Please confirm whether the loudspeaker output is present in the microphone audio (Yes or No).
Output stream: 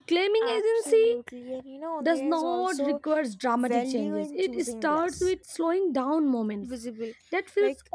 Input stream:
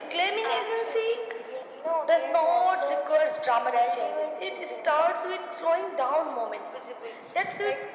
Yes